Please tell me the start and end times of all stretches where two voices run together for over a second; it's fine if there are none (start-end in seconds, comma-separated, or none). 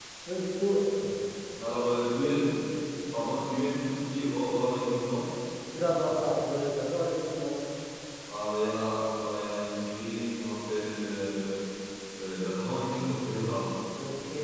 none